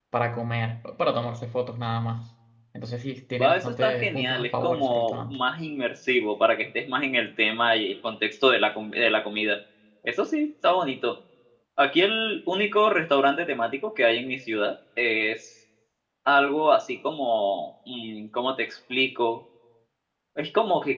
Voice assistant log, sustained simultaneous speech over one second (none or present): present